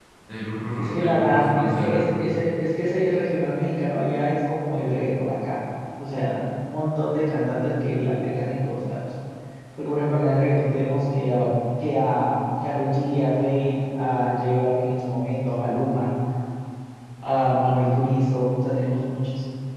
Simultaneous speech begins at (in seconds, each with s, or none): 0.8 s